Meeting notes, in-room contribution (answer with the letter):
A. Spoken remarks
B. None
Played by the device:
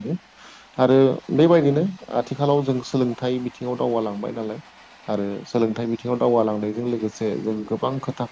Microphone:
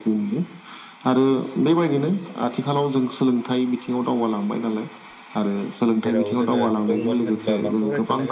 A